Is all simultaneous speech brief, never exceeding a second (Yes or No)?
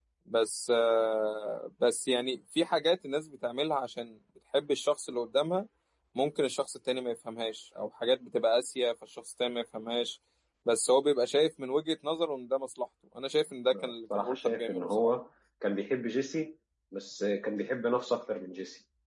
No